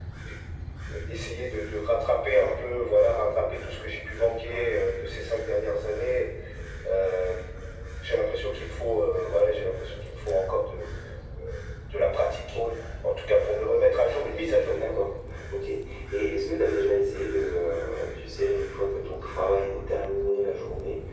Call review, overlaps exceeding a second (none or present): none